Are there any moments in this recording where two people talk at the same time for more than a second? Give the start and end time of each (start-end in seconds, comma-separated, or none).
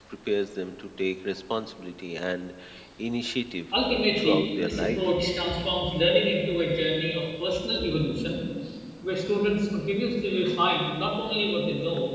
3.8-5.1